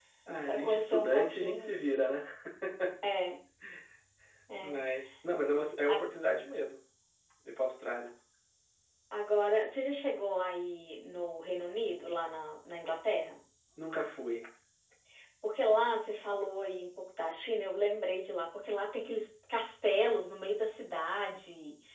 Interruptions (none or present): present